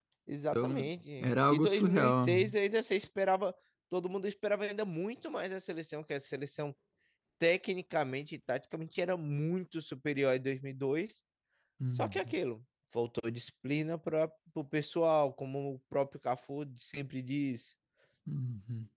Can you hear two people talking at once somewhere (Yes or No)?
Yes